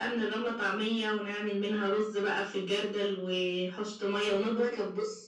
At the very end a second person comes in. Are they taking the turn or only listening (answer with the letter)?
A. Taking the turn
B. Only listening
B